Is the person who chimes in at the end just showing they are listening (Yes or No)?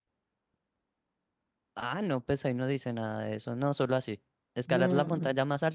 Yes